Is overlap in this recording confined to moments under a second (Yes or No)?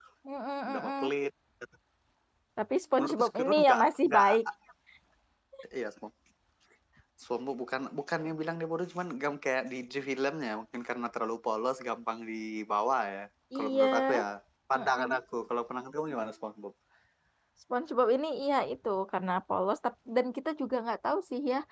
No